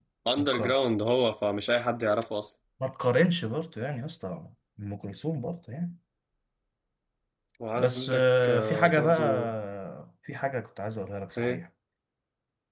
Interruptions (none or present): present